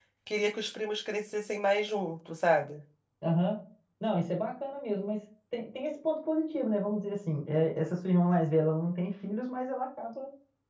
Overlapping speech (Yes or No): No